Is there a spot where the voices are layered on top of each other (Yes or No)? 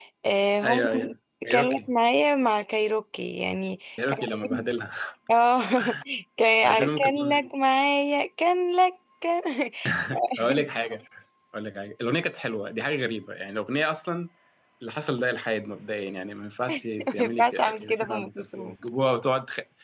Yes